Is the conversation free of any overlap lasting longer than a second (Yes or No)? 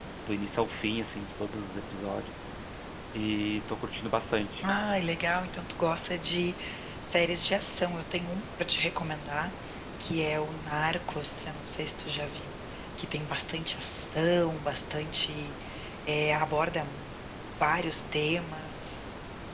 Yes